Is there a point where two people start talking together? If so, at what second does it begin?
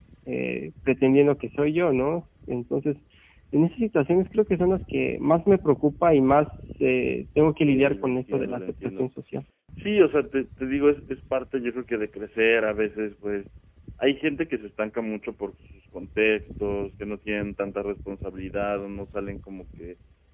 7.6 s

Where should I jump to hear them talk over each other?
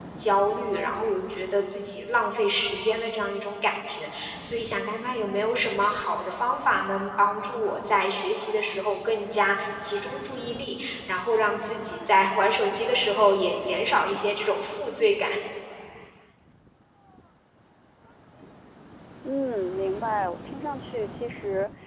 none

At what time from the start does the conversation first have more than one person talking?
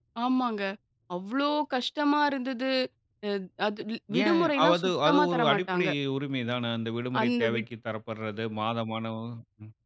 4.2 s

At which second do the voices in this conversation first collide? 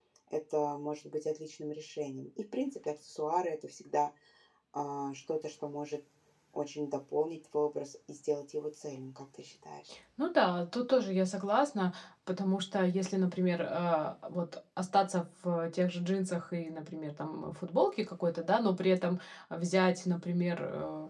none

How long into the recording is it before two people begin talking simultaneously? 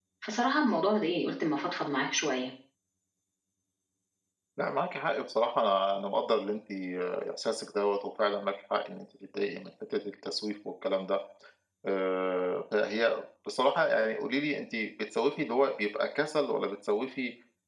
none

